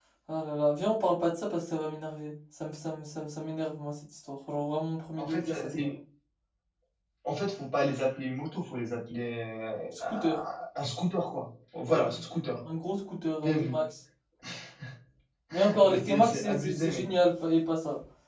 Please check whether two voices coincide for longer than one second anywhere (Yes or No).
Yes